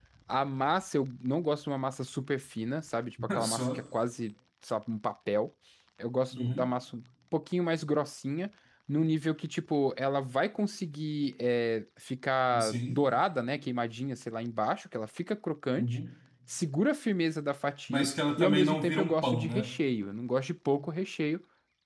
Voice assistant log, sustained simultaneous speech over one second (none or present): present